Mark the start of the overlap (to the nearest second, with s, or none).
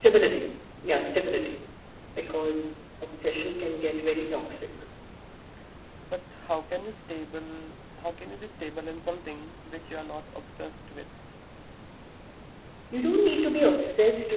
none